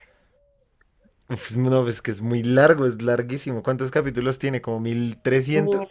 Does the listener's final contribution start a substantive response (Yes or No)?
Yes